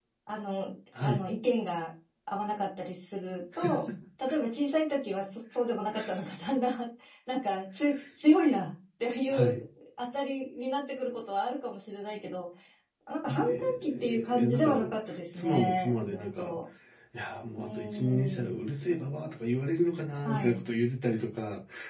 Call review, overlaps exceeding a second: present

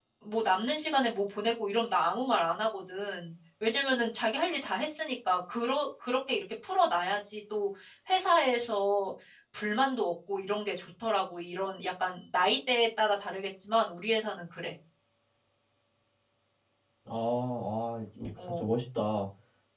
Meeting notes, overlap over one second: none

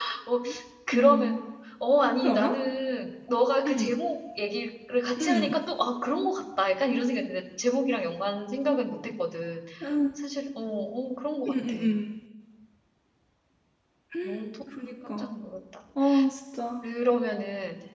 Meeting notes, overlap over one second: none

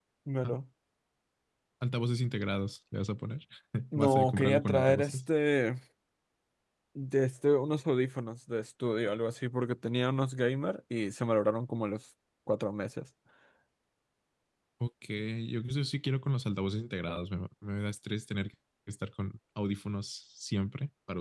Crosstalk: present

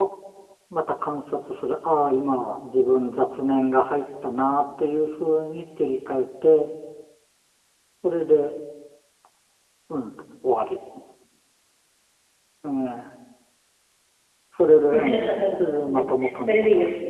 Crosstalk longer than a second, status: present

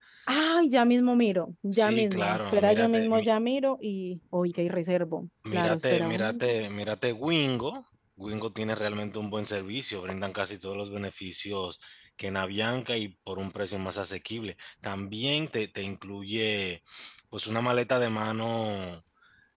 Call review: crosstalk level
present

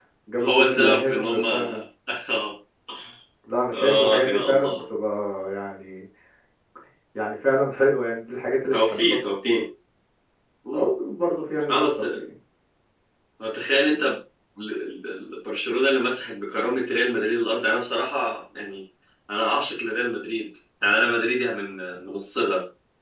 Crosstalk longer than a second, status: present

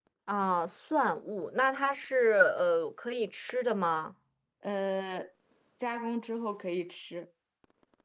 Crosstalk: none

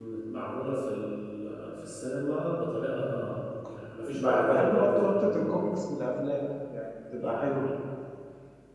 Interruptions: present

